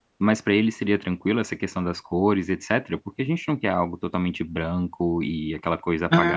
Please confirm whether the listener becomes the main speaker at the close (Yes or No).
Yes